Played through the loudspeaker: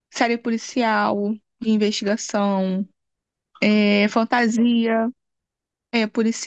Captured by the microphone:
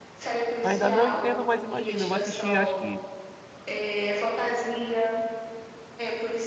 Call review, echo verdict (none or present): present